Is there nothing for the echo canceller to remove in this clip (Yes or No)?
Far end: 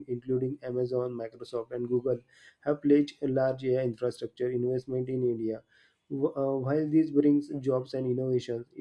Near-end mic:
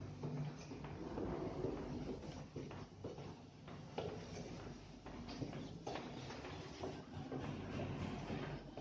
Yes